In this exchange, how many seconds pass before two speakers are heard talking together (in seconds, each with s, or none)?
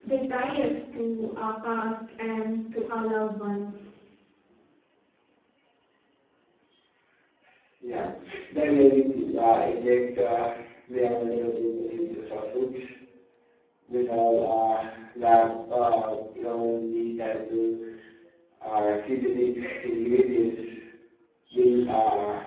none